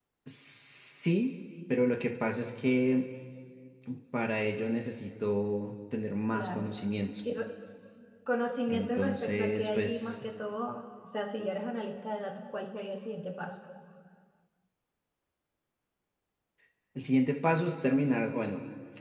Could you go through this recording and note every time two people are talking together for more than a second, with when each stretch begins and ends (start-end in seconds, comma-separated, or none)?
8.7-10.2